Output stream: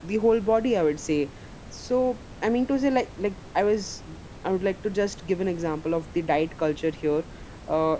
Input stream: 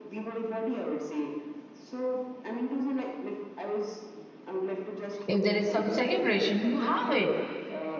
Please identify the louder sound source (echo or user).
user